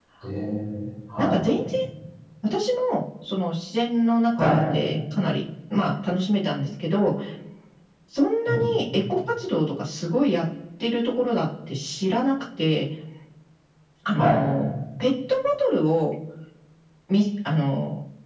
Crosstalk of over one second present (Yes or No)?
No